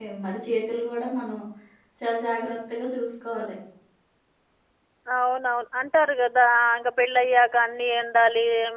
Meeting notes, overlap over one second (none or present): none